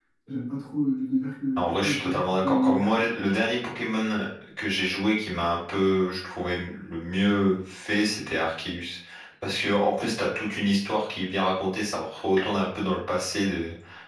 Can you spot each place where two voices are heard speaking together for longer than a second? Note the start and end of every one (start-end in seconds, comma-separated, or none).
1.6-3.0